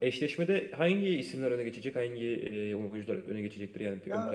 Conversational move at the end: taking over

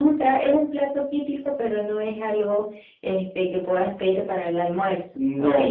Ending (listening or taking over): taking over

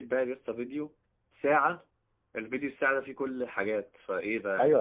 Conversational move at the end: taking over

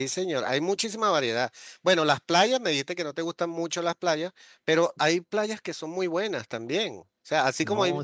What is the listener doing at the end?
listening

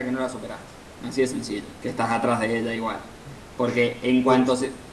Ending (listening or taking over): listening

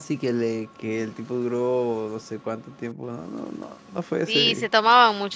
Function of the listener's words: taking over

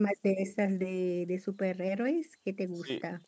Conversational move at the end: taking over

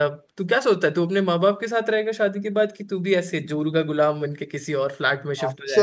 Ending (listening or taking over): taking over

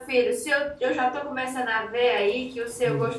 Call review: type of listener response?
listening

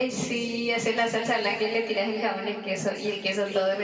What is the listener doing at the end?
taking over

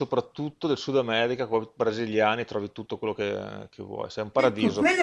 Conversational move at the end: taking over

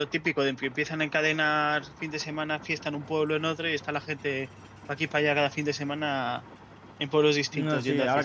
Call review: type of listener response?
taking over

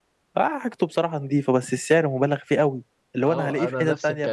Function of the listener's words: taking over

